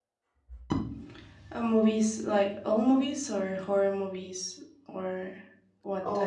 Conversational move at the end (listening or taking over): taking over